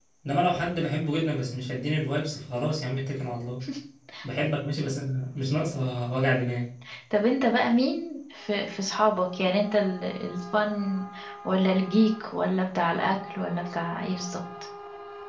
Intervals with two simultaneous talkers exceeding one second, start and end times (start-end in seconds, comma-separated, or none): none